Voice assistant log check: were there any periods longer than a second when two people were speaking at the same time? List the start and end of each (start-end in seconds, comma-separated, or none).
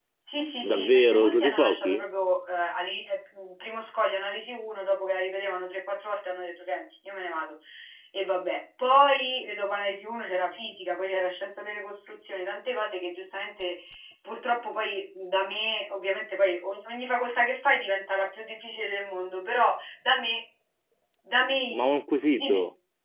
0.6-2.1